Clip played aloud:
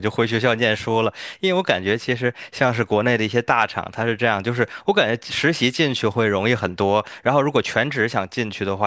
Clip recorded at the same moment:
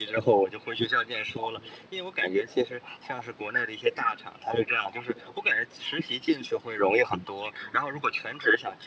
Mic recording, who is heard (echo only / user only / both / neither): echo only